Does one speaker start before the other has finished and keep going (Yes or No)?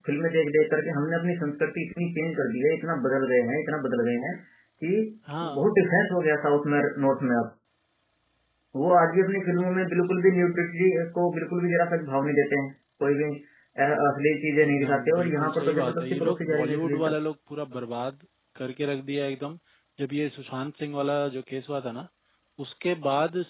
Yes